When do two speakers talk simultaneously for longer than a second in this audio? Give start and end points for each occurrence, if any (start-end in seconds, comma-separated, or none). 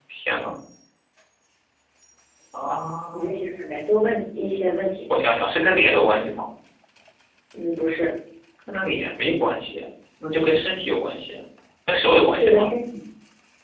none